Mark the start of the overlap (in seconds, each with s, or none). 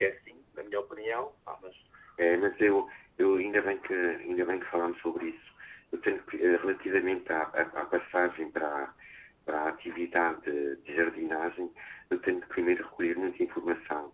none